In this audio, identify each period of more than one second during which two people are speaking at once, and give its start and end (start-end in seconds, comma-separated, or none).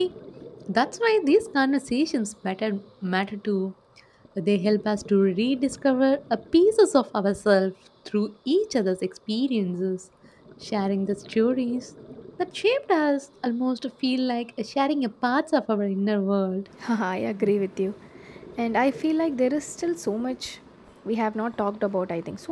none